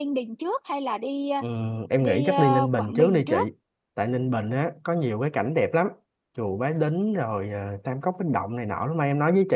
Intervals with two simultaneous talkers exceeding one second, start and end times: 2.0-3.3

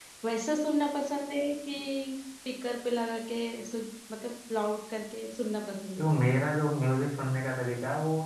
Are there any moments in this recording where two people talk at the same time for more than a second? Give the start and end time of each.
none

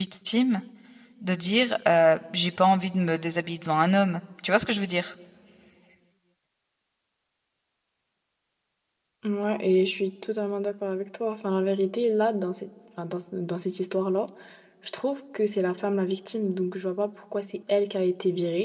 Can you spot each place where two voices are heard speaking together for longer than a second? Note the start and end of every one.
none

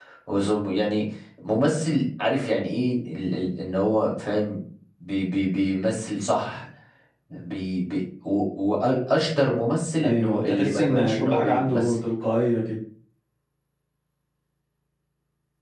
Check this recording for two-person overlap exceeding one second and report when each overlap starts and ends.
10.0-11.9

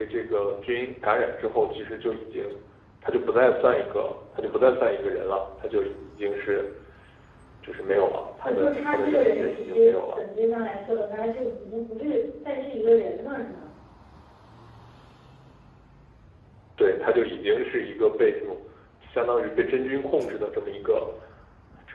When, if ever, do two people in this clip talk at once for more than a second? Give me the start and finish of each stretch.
8.4-10.2

